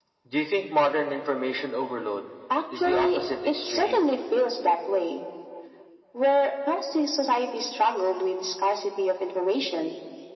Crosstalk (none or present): present